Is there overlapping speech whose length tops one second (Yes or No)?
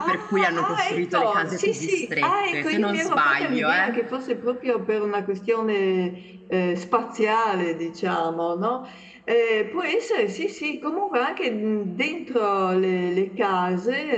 Yes